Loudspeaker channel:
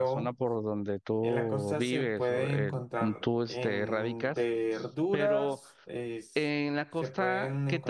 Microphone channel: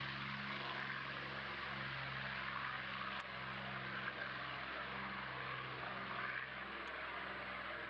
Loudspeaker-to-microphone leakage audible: No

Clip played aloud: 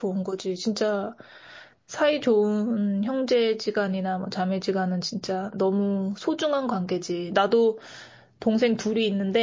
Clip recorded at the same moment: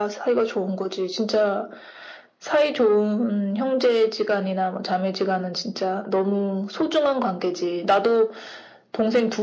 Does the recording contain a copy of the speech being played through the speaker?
Yes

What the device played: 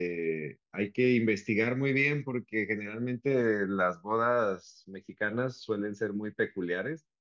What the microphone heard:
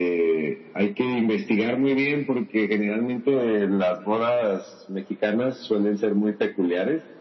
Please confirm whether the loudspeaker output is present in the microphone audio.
Yes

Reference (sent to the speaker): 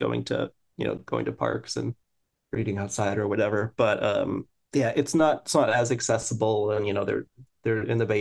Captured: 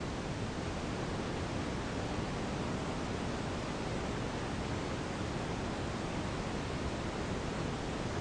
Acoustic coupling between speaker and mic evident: No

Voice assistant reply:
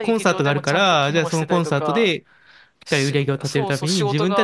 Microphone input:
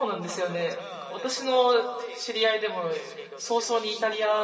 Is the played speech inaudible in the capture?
No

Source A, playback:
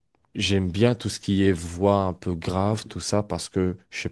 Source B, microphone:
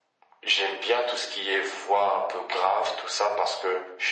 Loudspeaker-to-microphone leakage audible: Yes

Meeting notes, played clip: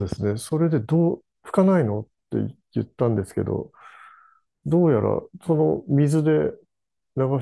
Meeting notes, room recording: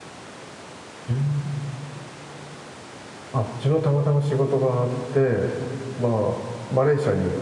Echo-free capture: Yes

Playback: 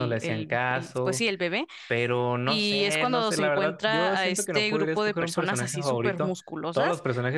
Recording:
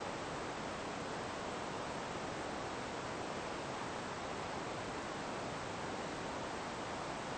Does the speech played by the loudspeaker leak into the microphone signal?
No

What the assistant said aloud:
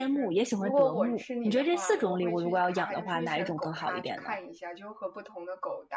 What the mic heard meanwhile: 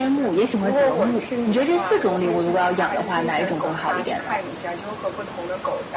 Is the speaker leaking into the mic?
Yes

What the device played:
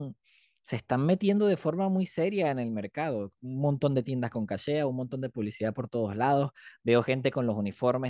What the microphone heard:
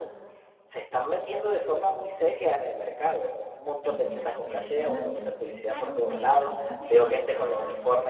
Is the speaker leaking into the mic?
Yes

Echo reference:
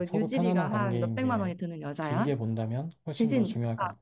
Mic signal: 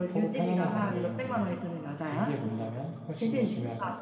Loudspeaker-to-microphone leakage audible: Yes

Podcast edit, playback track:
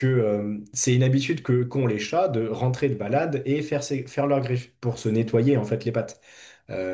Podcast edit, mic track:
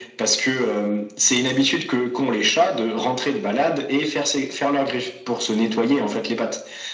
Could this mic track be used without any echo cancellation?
No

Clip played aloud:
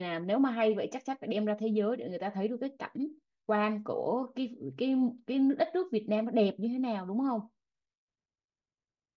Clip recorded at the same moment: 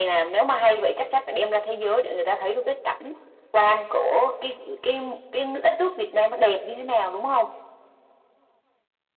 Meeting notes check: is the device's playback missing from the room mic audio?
No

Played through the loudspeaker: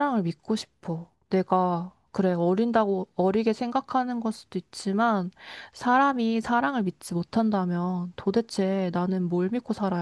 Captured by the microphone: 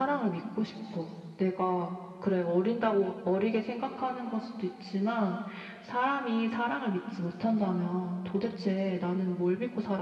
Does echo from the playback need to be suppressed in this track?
Yes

